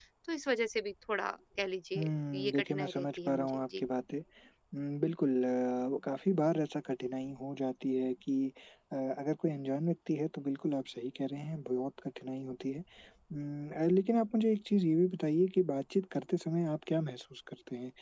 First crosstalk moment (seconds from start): 2 s

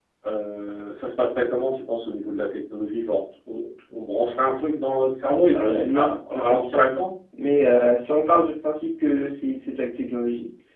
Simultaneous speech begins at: 6 s

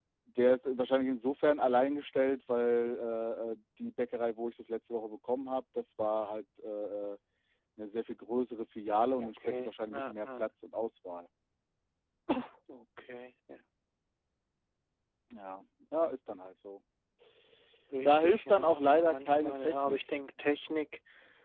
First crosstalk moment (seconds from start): 9 s

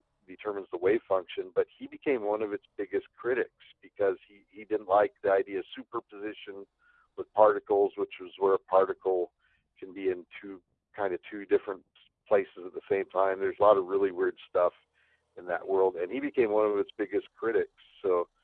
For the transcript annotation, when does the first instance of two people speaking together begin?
none

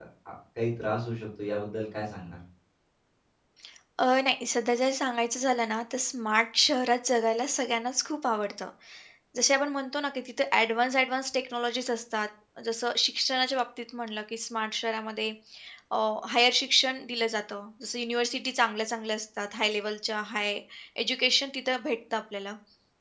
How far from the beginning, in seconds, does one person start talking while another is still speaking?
none

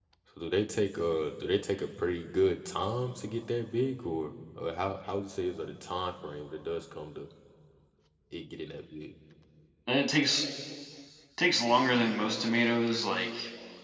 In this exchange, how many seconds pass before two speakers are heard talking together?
none

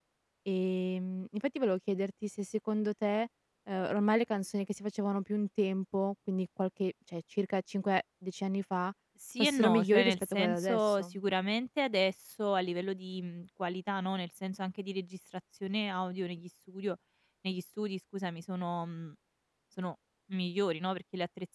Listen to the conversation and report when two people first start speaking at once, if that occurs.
9 s

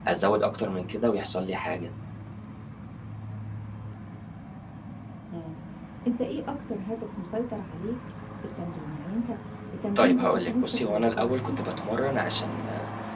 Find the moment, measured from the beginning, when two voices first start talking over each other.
10 s

